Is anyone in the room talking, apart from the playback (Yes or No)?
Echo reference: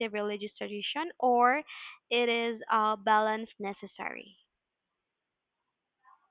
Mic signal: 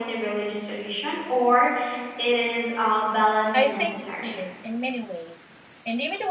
Yes